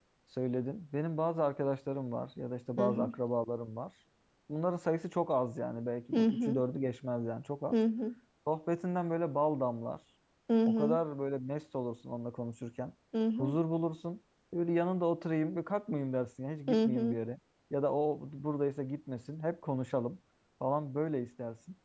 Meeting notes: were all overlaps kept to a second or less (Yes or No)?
Yes